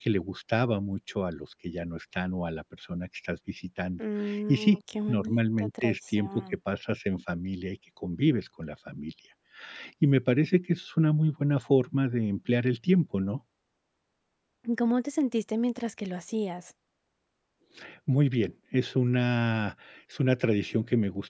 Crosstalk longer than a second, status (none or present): present